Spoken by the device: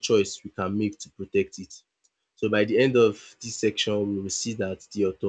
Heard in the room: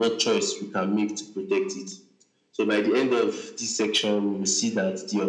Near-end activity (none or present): none